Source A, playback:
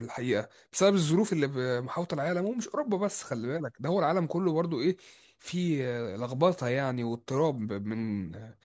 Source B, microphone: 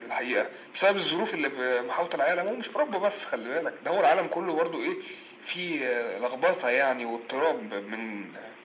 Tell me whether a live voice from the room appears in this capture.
No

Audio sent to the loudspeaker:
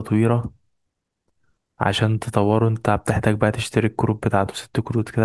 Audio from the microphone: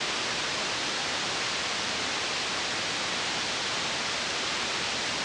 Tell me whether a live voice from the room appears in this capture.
No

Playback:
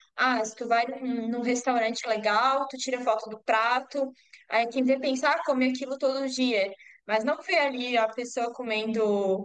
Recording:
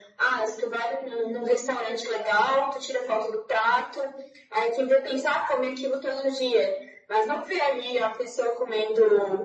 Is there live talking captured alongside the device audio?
No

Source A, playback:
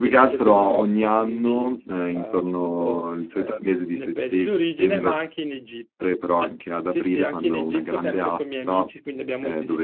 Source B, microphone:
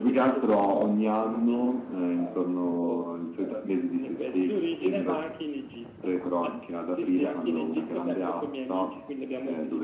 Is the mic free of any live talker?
Yes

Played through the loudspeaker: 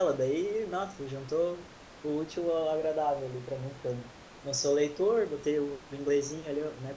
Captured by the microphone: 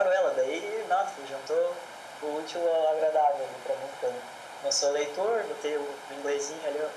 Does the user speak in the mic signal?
No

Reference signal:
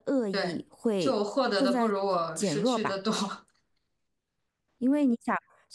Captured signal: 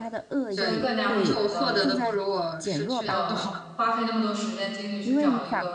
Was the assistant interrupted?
Yes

